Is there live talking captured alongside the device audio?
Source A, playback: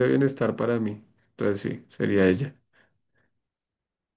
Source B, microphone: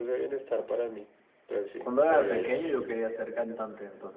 Yes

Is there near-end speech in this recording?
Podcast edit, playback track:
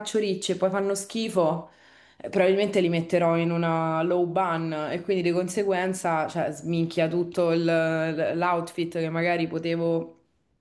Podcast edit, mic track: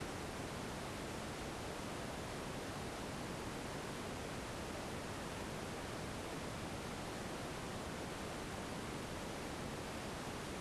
No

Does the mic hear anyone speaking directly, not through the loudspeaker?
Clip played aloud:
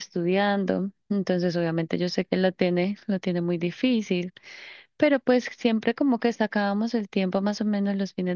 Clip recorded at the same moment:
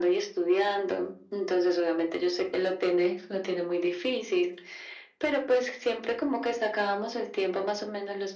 No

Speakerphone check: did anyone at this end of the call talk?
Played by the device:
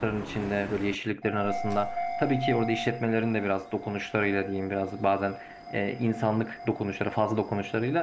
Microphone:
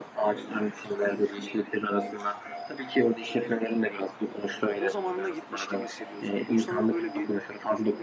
Yes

